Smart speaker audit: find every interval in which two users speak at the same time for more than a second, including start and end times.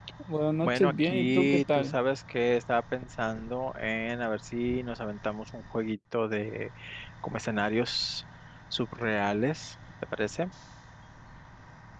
0.6-2.0

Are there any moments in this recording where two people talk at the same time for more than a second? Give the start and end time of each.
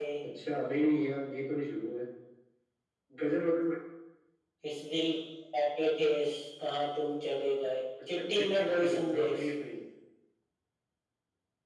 8.2-9.4

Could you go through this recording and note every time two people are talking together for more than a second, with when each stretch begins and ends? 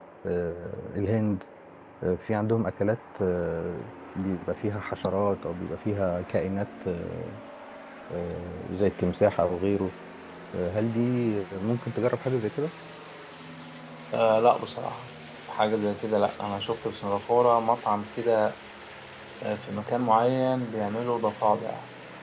none

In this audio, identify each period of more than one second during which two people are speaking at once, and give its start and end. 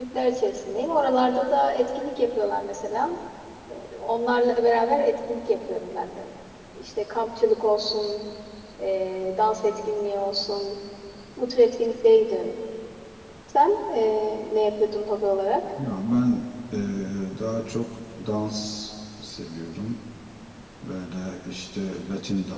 none

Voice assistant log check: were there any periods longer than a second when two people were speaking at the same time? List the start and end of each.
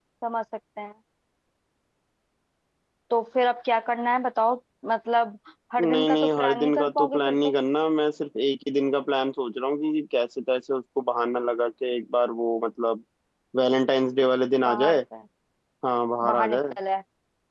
5.8-7.5

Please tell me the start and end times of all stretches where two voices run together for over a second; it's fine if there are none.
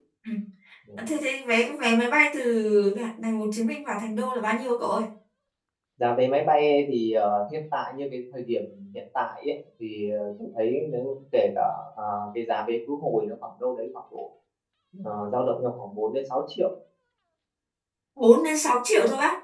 none

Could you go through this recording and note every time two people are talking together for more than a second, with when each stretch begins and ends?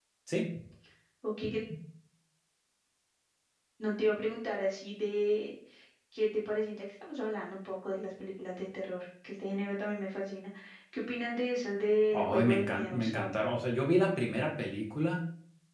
12.1-13.3

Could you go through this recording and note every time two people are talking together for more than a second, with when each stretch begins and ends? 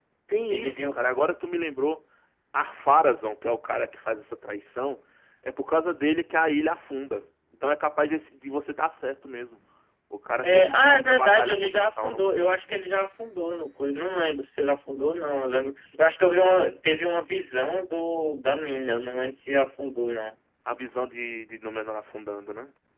10.4-12.2

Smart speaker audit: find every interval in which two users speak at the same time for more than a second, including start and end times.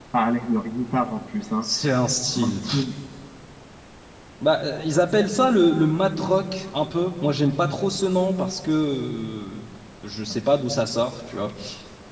none

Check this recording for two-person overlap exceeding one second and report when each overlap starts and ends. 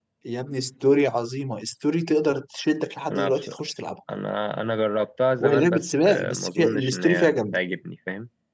5.4-7.6

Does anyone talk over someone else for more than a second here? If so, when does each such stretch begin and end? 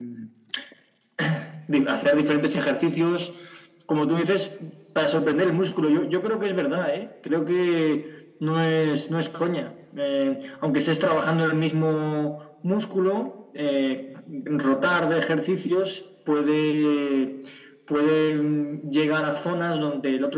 none

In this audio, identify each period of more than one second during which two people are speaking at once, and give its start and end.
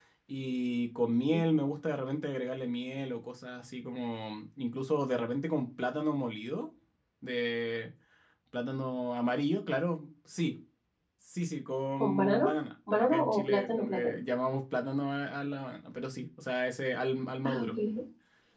12.9-14.2

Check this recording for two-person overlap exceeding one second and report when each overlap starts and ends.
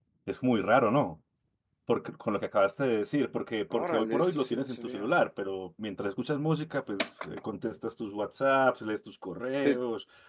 3.7-5.1

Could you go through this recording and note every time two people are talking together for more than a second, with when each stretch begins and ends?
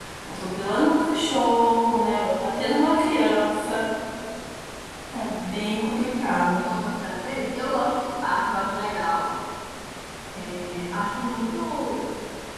none

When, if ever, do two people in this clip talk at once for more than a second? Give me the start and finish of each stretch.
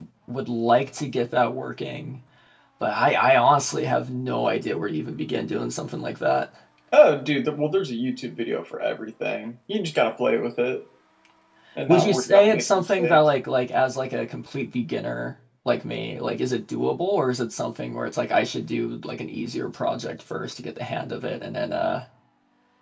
11.9-13.2

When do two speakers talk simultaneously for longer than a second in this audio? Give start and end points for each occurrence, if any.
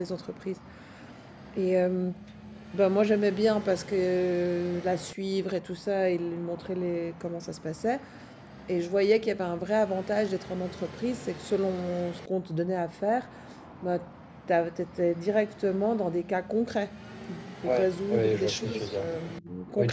17.6-19.0

